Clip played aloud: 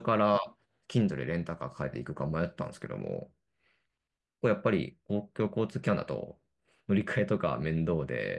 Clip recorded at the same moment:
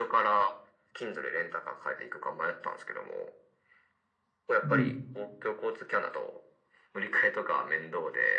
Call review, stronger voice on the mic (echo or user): user